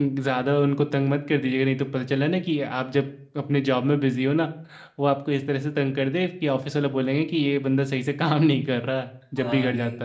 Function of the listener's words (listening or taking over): taking over